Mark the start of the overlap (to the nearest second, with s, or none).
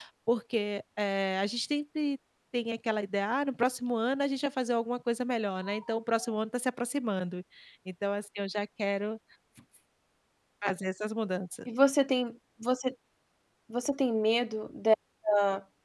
none